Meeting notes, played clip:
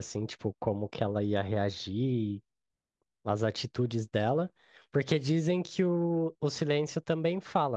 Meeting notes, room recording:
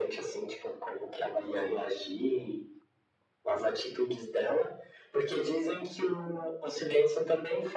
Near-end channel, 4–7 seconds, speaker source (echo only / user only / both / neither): echo only